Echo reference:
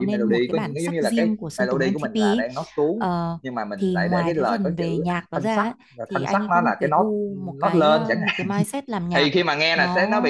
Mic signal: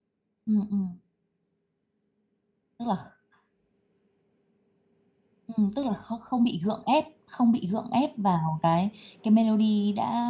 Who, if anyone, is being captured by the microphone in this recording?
user only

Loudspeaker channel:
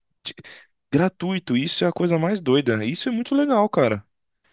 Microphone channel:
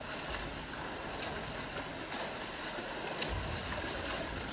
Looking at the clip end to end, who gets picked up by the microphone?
neither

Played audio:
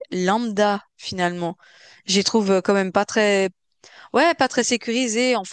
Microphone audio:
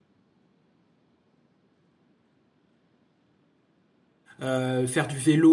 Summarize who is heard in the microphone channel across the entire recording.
user only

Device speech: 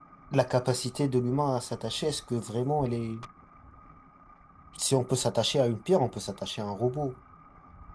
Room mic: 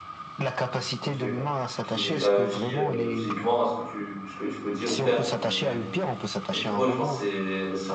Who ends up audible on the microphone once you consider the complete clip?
both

